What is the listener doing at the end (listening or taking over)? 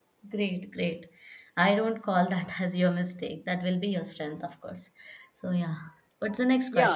taking over